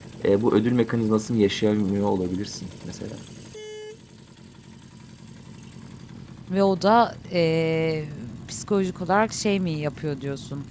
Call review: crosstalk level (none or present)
none